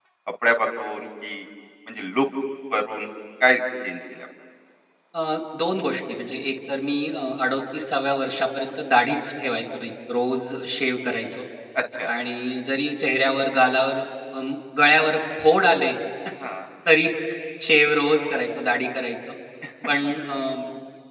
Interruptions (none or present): none